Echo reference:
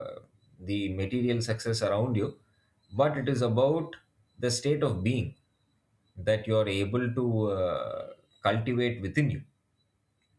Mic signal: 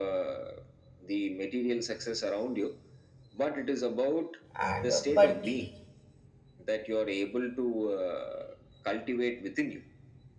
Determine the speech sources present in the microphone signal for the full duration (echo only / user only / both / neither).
both